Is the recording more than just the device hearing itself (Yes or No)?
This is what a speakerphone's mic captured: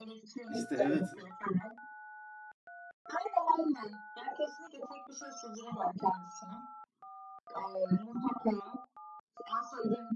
Yes